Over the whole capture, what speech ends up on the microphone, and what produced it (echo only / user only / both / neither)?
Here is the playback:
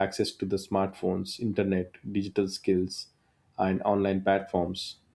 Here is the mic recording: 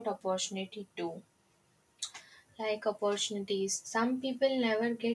user only